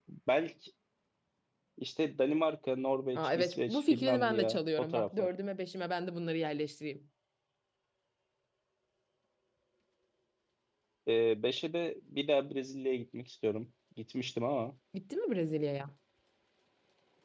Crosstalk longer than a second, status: present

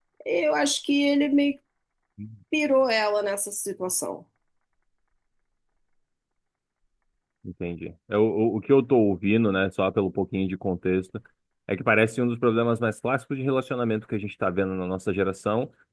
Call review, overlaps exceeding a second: none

